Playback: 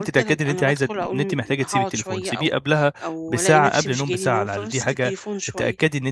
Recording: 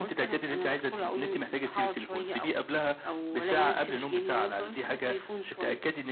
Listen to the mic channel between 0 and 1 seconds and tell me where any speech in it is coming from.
echo only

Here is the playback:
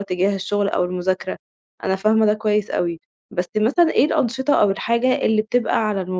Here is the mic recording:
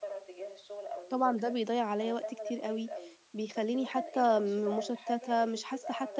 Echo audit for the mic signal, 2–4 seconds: both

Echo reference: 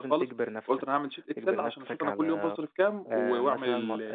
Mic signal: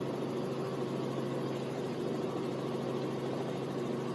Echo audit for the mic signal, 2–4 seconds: neither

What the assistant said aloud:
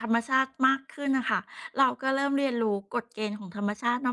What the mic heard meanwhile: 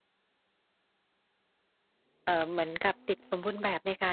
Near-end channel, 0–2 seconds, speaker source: neither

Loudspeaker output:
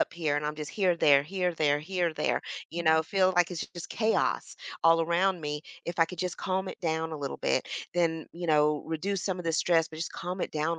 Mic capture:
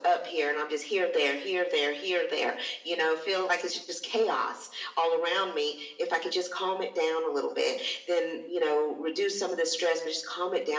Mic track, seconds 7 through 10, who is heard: echo only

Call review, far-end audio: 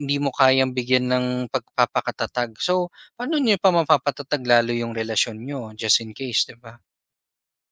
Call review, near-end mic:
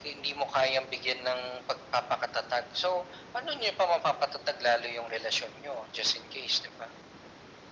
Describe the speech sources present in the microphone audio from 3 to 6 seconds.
echo only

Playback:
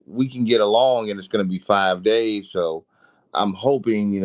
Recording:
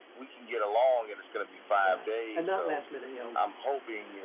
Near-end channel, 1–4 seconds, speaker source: both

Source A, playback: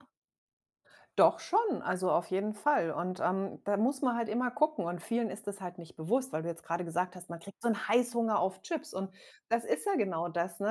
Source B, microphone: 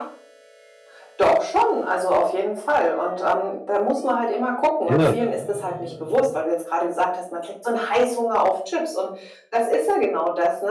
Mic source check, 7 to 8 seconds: echo only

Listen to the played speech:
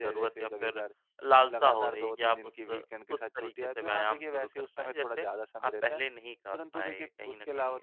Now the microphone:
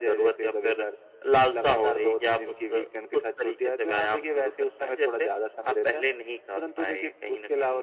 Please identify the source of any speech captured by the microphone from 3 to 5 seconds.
echo only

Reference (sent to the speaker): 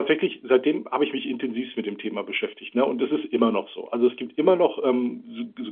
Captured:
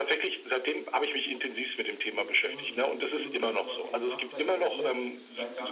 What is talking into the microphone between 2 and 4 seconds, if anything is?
both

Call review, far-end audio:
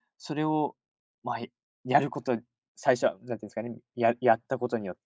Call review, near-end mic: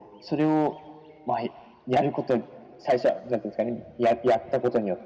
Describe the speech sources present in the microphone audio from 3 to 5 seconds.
echo only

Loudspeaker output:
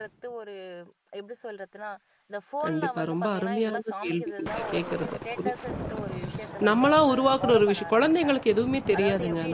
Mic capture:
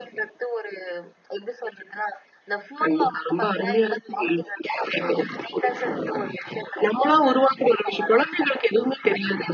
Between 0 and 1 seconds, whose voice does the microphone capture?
echo only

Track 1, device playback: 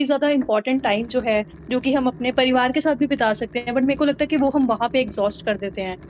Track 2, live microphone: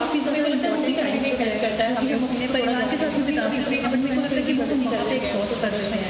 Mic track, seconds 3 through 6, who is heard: both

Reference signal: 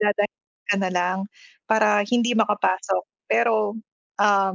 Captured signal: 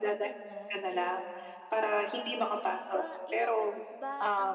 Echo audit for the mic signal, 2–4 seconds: both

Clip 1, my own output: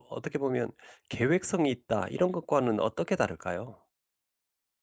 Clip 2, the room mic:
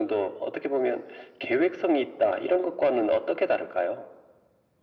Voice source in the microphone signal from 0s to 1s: echo only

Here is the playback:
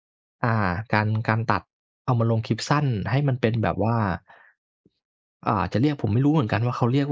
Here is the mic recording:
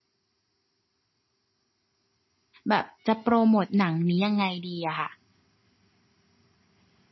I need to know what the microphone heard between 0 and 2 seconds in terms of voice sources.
neither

